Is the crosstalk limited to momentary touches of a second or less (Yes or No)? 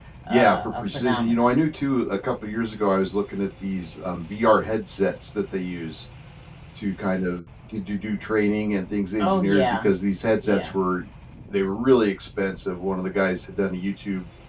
No